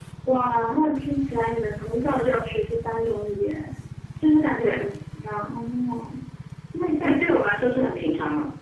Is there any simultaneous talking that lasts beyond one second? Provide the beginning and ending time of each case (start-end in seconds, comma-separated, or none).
none